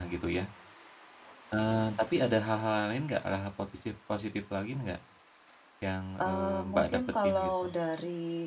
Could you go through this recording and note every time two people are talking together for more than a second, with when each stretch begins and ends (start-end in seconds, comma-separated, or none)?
6.2-7.7